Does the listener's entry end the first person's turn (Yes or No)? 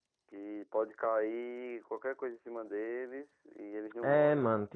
Yes